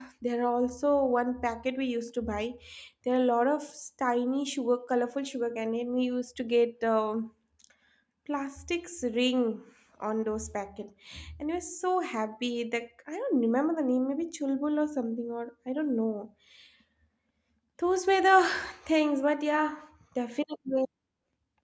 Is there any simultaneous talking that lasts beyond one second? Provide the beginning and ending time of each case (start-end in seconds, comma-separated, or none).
none